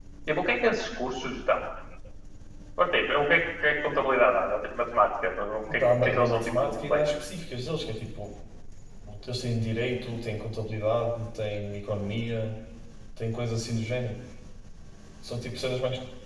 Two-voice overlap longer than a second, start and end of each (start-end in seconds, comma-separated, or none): 5.7-7.1